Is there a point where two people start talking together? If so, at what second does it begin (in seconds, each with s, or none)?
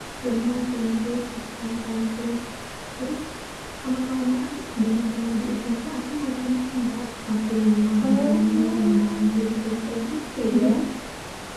8.0 s